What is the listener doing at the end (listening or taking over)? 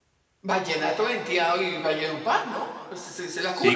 taking over